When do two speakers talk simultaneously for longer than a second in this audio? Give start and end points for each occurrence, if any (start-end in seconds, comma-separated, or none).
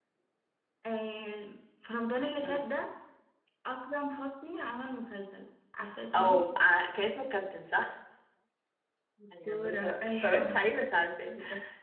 9.4-10.7